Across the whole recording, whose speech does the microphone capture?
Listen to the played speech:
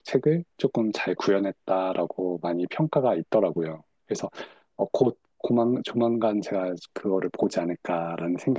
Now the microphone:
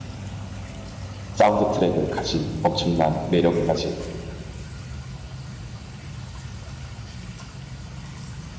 user only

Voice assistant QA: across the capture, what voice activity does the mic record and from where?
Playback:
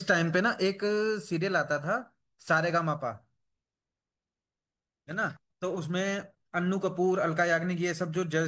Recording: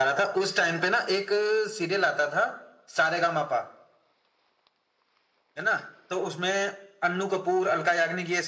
echo only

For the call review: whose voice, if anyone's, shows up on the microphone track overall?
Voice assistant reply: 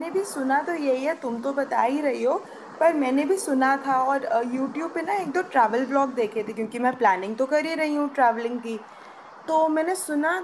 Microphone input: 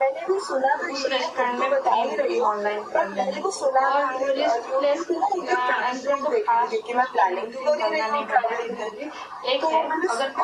both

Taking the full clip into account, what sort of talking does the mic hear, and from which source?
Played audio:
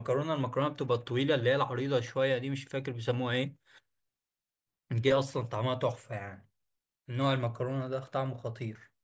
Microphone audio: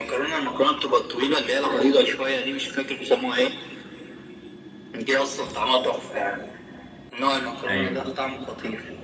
both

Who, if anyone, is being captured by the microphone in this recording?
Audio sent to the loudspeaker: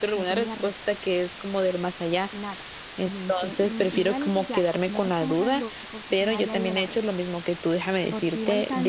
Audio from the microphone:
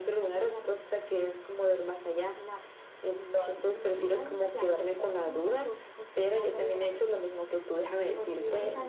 echo only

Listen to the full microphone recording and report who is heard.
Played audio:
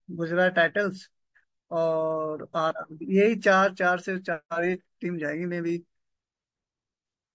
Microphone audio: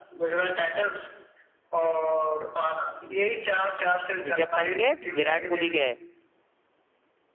both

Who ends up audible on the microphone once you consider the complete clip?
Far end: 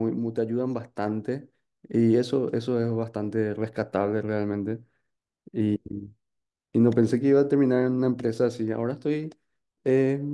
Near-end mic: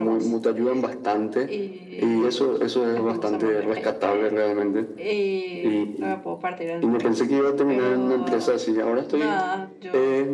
both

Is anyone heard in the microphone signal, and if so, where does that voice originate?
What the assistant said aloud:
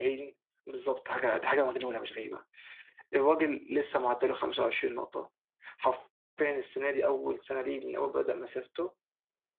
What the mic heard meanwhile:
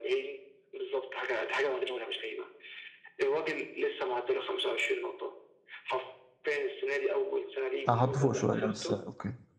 both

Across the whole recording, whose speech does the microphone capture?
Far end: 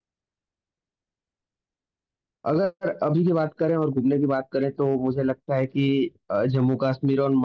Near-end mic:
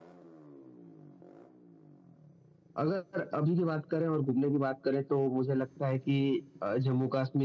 echo only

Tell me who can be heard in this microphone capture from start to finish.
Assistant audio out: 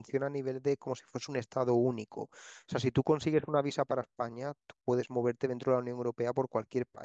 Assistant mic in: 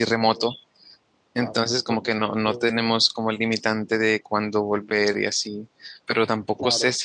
user only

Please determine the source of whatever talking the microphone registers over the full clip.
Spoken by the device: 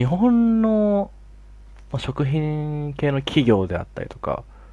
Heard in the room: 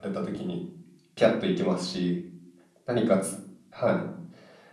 user only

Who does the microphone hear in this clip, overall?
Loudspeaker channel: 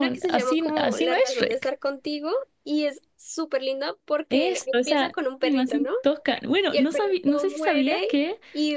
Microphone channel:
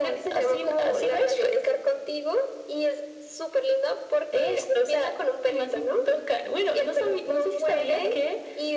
echo only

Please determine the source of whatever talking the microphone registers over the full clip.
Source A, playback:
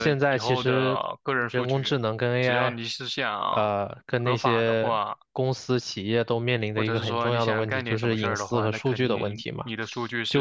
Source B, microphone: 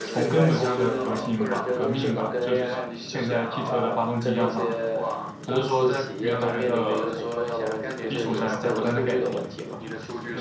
both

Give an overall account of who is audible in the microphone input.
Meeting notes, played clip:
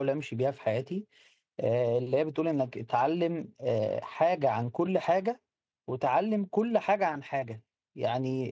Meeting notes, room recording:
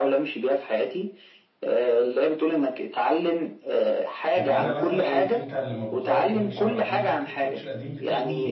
both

